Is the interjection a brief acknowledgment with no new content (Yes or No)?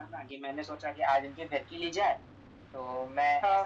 Yes